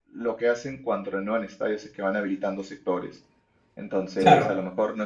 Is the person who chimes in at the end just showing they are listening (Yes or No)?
Yes